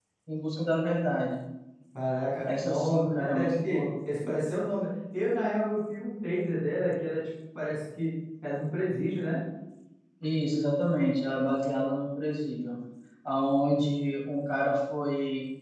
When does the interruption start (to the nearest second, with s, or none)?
2 s